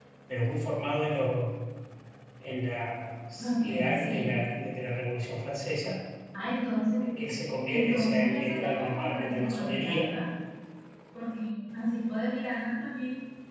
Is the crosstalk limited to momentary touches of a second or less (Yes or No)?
No